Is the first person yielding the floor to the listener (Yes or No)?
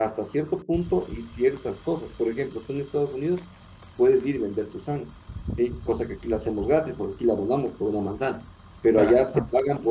No